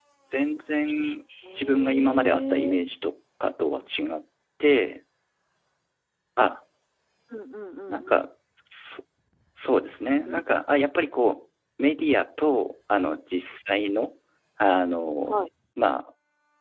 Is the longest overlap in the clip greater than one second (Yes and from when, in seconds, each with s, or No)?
Yes, from 1.5 s